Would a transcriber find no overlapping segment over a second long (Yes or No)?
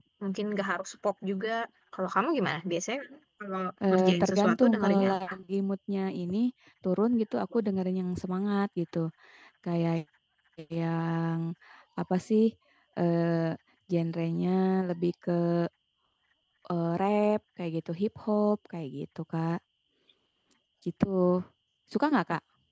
No